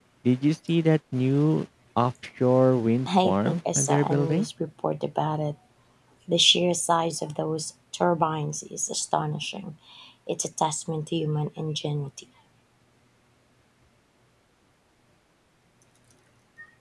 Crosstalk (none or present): present